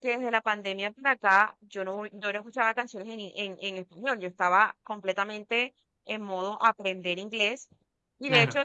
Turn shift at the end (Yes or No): No